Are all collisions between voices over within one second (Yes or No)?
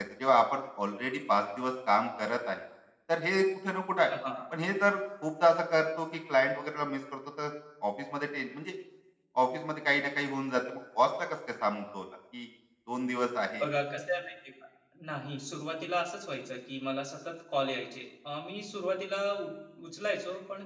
Yes